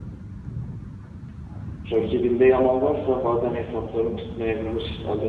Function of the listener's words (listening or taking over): taking over